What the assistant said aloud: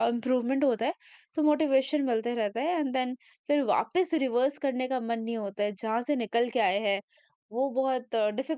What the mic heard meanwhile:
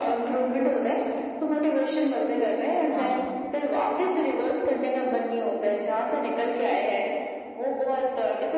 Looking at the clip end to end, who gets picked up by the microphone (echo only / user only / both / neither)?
both